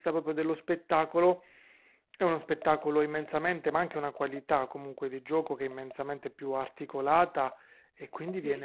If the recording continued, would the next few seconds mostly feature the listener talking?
No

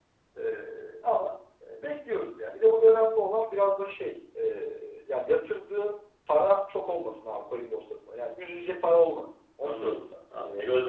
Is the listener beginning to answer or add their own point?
Yes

